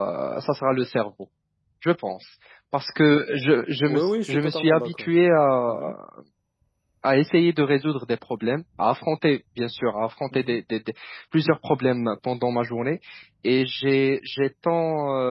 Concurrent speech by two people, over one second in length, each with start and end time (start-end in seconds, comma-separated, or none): 3.9-5.1